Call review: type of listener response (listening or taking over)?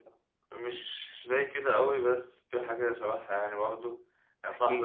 listening